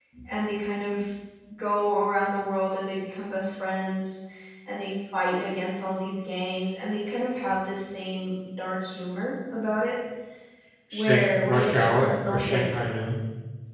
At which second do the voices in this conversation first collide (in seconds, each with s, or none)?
10.9 s